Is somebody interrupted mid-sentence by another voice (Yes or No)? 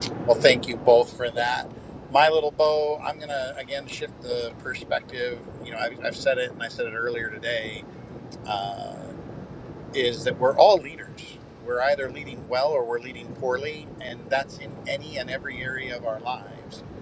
No